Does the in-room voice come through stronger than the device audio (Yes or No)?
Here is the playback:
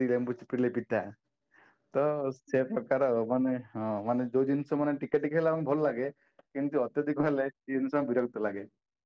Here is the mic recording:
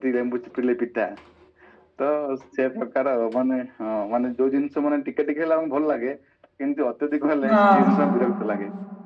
Yes